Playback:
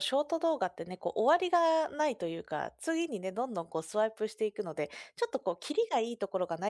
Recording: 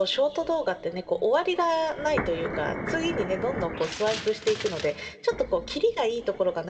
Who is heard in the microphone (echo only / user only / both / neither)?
echo only